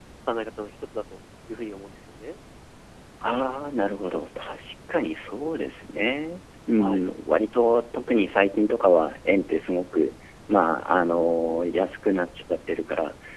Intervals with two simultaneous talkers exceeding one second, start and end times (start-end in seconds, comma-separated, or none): none